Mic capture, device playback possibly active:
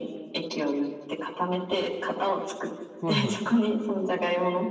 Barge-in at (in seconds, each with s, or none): 3.0 s